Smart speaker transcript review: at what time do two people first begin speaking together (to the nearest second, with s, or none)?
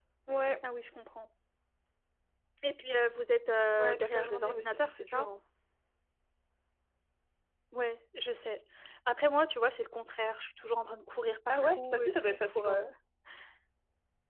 4 s